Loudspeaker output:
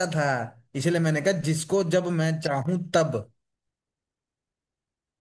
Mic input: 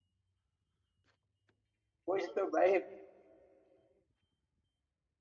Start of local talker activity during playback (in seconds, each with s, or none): 2.1 s